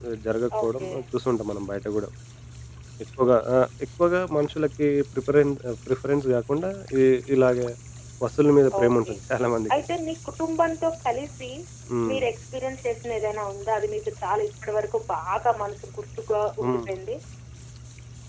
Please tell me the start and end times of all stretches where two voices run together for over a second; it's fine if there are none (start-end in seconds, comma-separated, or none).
none